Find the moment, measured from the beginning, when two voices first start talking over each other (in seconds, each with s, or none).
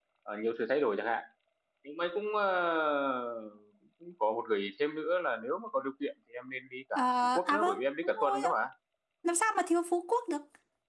7.0 s